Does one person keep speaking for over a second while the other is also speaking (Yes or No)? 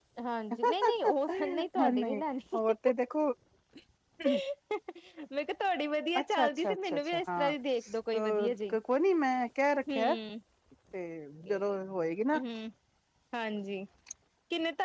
Yes